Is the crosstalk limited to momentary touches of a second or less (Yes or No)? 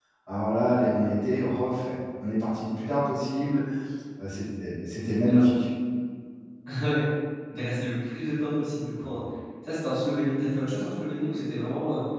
Yes